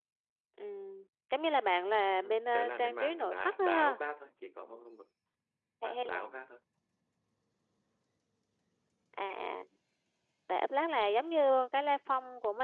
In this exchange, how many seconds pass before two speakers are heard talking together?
2.2 s

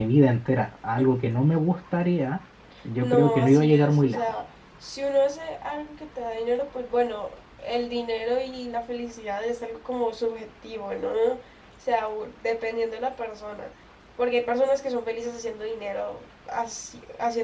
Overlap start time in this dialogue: 3.0 s

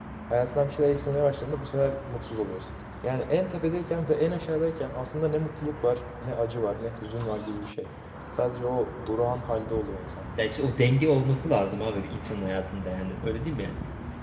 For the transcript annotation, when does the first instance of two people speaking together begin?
none

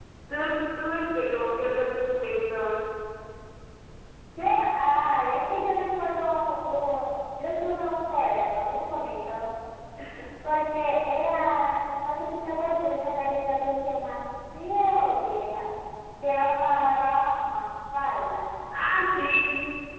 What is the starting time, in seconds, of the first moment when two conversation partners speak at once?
none

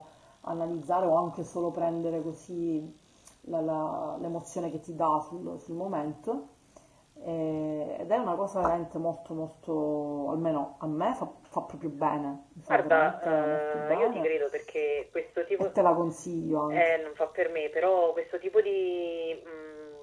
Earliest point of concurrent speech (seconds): 12.7 s

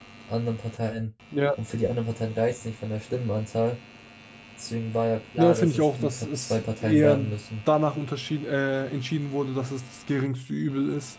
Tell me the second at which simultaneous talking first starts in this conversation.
5.4 s

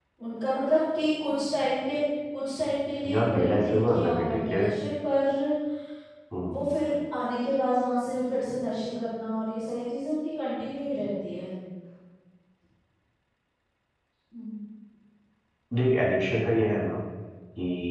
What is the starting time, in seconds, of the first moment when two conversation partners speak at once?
3.0 s

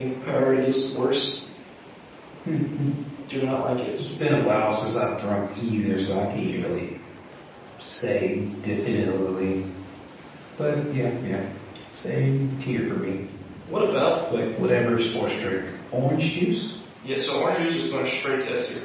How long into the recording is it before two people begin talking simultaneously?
none

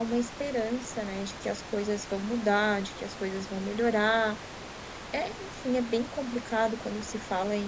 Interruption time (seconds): none

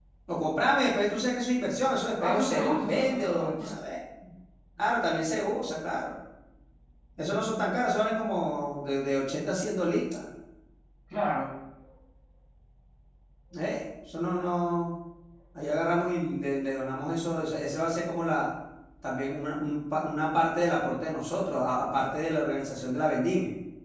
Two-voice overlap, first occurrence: 2.2 s

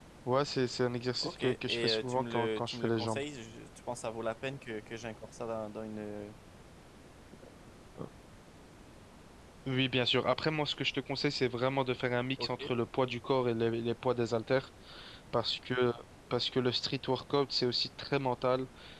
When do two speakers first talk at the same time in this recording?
1.2 s

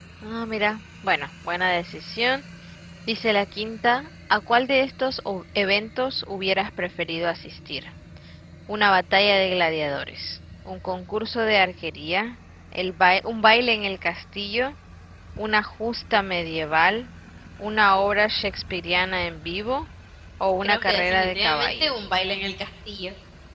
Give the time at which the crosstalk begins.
20.6 s

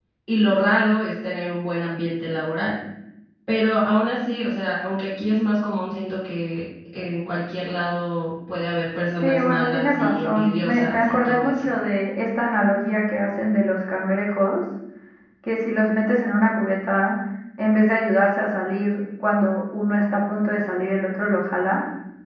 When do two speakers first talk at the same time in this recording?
9.2 s

